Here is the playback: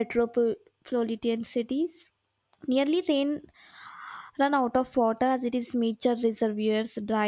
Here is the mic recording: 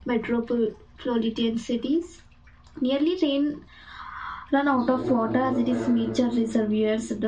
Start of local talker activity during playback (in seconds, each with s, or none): 4.7 s